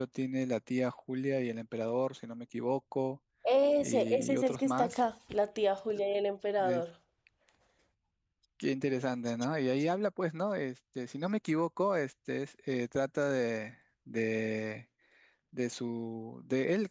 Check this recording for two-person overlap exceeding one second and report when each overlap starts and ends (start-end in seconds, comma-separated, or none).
3.8-5.0